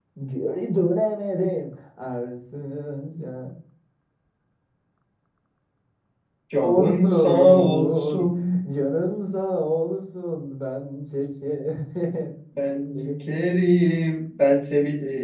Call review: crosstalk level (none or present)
present